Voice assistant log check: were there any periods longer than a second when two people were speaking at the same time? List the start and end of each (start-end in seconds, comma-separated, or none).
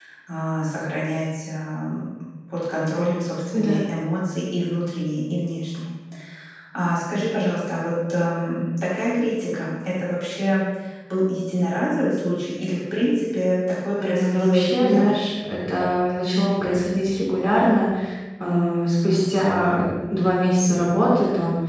14.0-15.2